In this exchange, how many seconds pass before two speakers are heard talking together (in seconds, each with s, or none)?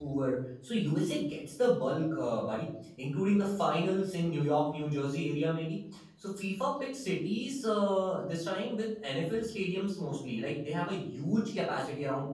none